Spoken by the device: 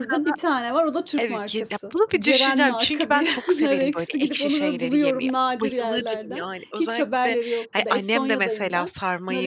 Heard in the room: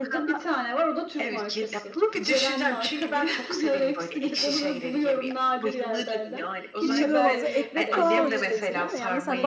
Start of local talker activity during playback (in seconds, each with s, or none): 6.8 s